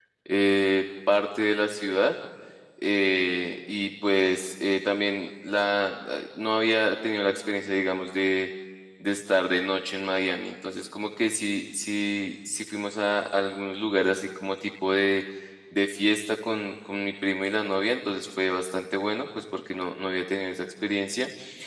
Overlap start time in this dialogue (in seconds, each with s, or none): none